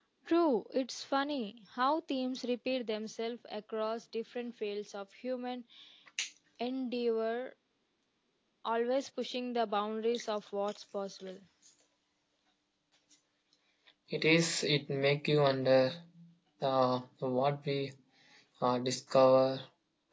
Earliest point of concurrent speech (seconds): none

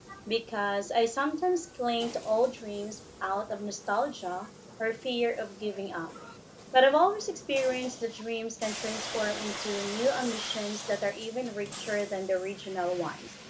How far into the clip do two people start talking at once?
none

